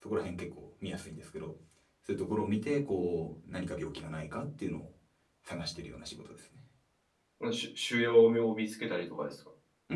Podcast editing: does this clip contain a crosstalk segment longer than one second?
No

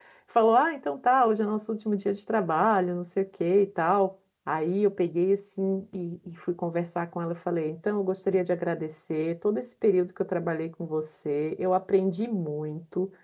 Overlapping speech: No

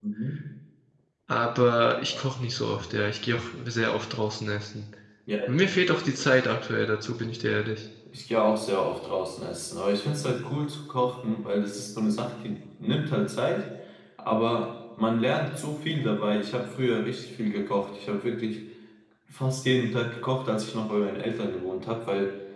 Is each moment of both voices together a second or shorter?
Yes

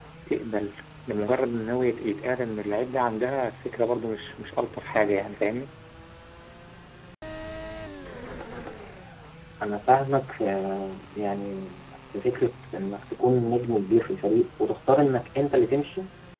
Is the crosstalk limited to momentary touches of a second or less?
Yes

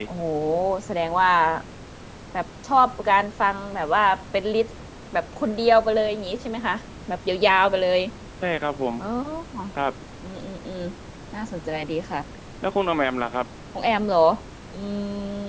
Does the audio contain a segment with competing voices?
No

